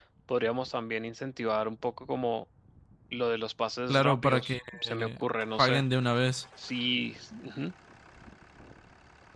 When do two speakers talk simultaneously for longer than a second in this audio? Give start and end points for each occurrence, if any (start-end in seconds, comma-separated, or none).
3.9-5.2